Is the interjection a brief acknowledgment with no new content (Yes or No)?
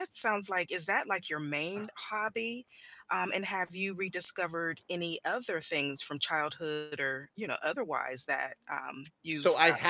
No